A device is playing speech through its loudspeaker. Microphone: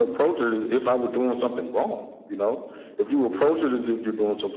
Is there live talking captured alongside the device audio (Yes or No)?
No